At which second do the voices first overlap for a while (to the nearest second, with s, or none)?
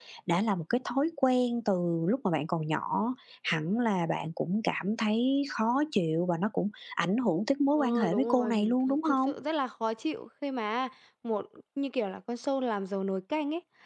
8 s